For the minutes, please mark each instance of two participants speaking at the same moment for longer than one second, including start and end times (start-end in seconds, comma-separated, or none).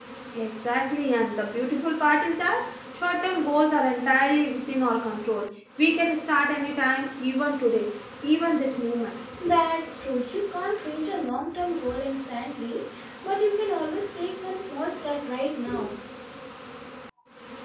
none